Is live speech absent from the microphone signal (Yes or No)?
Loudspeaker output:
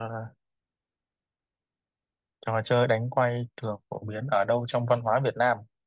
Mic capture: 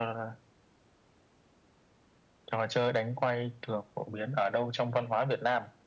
Yes